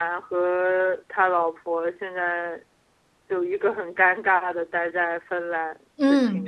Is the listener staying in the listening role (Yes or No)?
No